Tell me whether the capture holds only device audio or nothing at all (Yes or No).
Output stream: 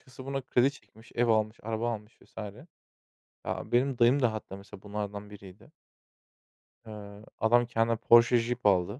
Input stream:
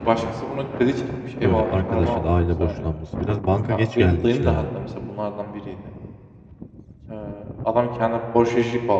No